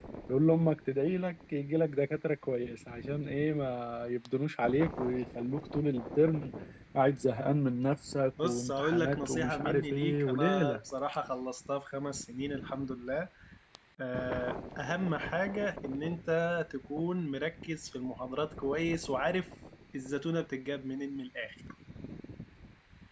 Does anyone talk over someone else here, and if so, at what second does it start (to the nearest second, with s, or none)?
8 s